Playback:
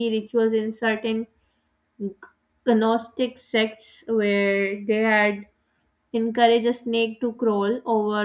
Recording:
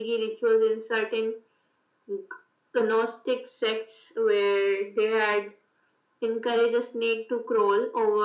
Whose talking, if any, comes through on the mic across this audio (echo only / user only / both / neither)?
echo only